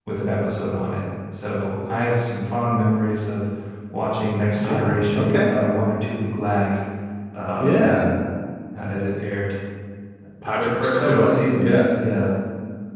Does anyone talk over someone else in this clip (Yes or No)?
Yes